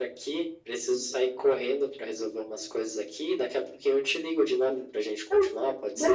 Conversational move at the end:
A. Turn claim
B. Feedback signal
A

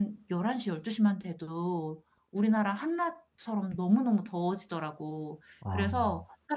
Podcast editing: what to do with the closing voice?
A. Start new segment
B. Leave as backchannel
B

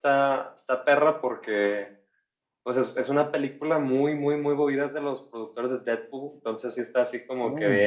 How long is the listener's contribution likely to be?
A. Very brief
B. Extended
A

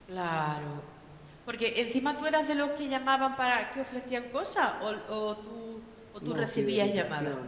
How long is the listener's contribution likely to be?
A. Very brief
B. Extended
B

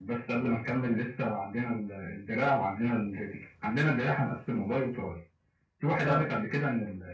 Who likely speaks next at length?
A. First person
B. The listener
A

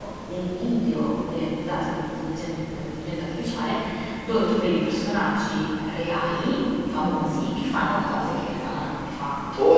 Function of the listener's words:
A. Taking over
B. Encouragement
A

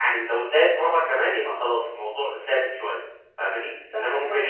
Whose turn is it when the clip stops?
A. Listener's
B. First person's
B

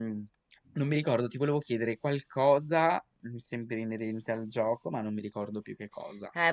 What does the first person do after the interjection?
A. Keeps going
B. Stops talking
B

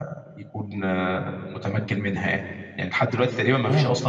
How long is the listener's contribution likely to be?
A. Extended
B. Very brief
B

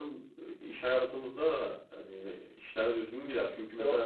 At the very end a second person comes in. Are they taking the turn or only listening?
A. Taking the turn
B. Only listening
B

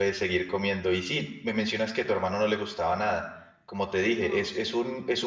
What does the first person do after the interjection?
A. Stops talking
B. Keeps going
B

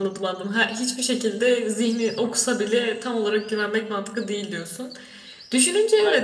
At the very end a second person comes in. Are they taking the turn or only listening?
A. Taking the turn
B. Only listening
B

